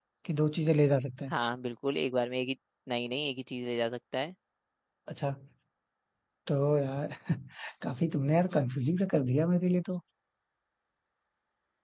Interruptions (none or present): none